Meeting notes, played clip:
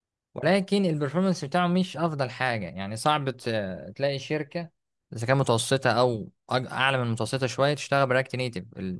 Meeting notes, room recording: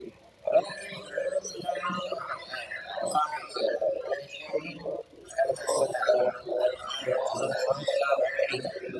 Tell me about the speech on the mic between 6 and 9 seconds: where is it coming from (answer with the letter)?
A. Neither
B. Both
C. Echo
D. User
C